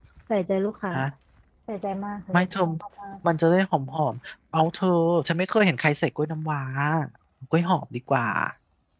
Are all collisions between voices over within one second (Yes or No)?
Yes